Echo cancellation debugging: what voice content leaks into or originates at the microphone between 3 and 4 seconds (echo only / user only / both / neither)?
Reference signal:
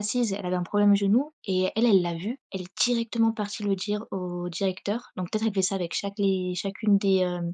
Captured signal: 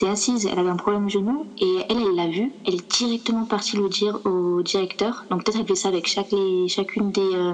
echo only